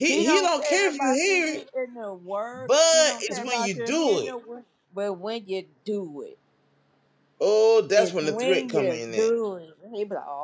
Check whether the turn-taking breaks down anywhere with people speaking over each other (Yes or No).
Yes